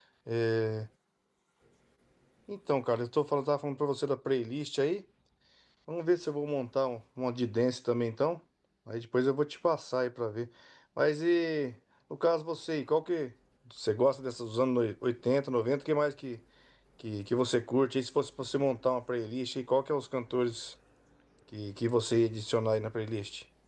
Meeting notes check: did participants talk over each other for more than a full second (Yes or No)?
No